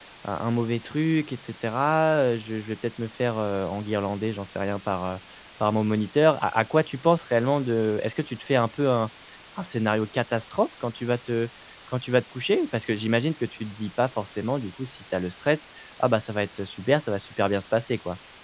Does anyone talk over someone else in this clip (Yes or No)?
No